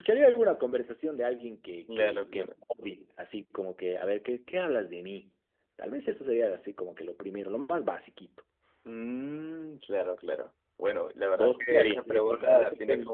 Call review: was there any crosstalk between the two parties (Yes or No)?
Yes